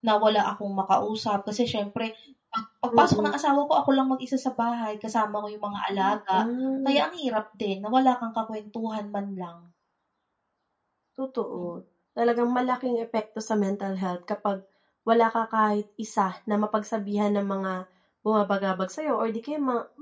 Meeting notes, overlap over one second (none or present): none